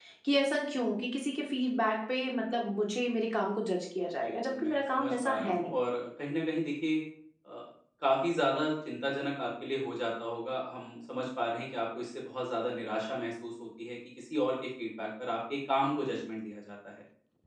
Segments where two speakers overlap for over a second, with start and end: 4.2-5.7

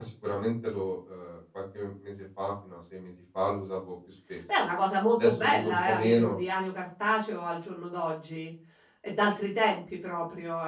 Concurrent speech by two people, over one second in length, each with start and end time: 5.2-6.4

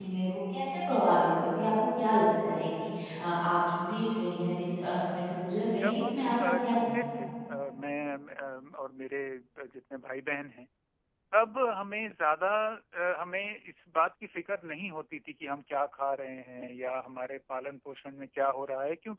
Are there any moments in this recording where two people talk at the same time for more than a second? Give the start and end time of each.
5.8-7.0

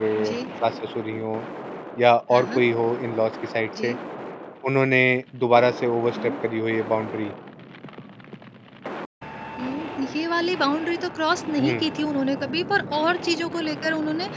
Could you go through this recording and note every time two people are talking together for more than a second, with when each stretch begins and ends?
none

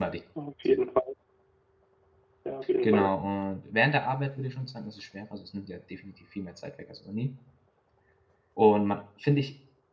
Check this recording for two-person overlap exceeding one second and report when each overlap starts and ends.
none

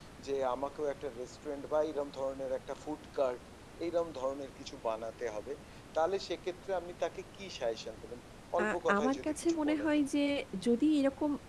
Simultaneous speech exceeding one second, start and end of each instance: 8.6-9.9

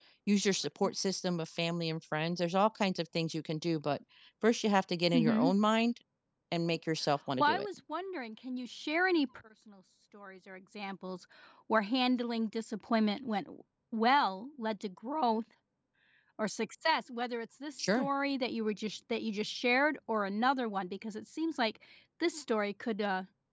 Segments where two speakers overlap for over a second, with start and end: none

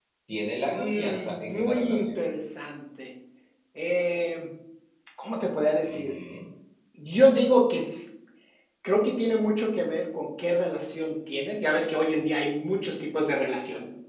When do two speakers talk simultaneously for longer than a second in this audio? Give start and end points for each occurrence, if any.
0.7-2.2

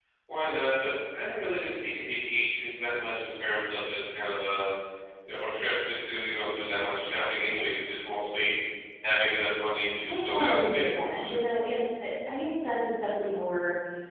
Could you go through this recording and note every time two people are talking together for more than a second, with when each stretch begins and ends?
10.1-11.4

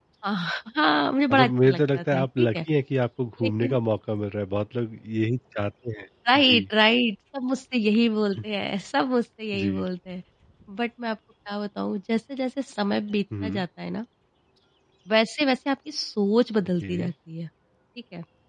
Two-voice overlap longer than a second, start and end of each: 1.3-2.6

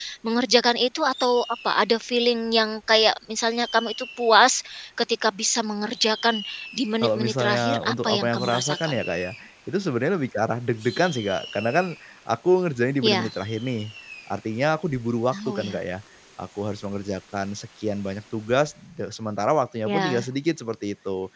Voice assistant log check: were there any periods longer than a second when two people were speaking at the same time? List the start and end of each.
7.0-9.0

